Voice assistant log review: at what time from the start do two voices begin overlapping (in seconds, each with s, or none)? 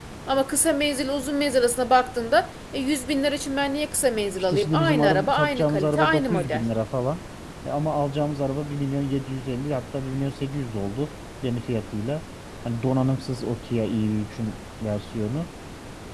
4.5 s